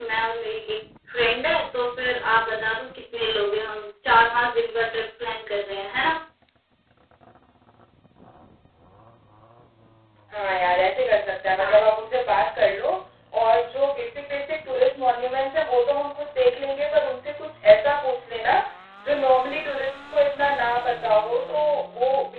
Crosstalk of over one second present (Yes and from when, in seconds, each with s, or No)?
No